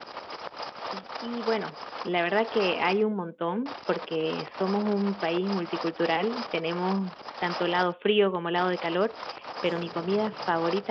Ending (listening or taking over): listening